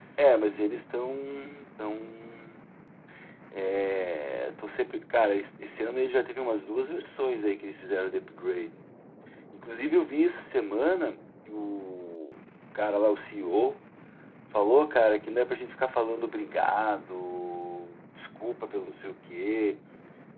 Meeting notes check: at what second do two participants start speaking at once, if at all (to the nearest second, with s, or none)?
none